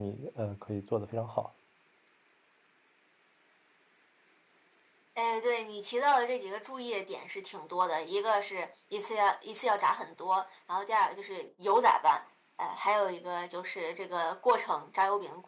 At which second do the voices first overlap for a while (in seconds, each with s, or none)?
none